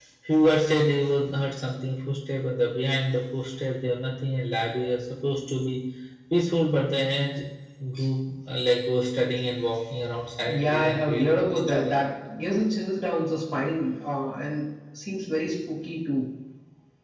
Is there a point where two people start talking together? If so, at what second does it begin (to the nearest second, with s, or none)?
10 s